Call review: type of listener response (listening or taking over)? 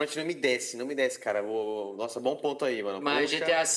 taking over